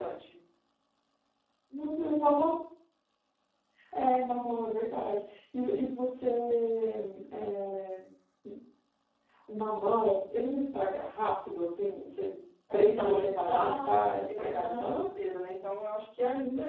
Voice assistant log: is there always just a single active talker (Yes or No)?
No